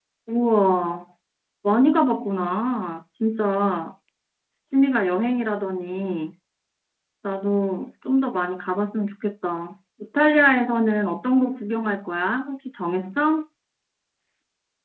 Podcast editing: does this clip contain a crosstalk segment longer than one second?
No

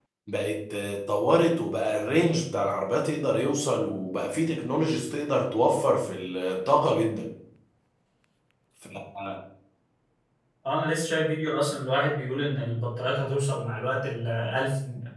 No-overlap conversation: Yes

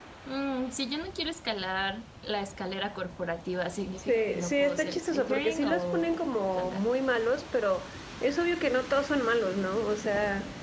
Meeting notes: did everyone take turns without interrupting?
No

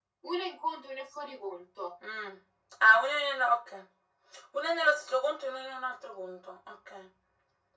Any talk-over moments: No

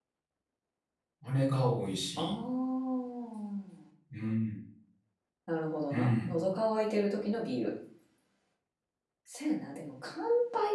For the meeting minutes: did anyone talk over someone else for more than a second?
No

